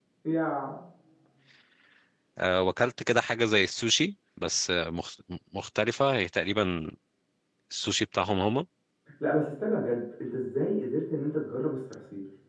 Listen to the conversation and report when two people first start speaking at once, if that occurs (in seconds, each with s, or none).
none